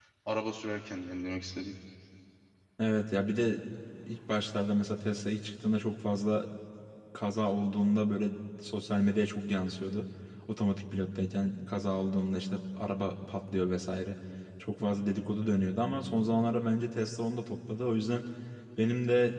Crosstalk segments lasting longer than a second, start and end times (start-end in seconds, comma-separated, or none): none